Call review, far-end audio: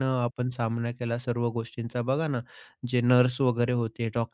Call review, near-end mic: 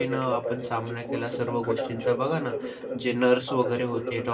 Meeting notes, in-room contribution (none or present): present